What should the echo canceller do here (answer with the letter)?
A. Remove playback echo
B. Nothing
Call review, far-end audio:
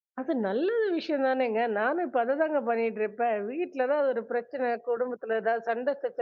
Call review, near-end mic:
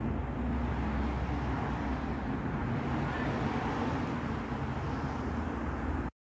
B